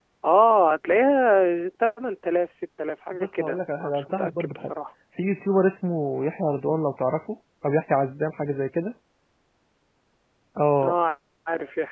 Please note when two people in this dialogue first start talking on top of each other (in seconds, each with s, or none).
3.4 s